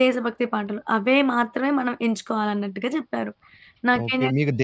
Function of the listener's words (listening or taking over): taking over